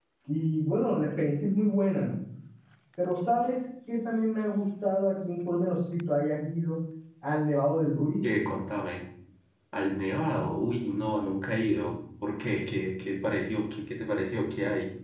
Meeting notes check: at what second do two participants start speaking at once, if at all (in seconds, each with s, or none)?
none